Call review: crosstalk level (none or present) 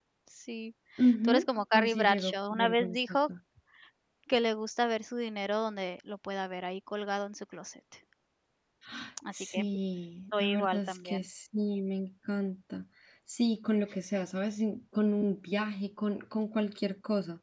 present